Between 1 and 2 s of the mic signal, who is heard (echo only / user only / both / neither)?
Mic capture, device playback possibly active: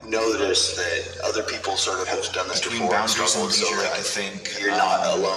echo only